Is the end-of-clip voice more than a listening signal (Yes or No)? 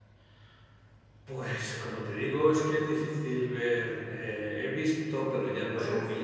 No